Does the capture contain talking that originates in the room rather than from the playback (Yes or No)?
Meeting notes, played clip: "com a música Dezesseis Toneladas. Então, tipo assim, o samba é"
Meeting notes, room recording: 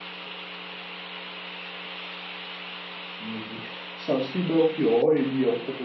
Yes